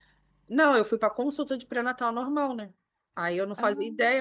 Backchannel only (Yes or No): Yes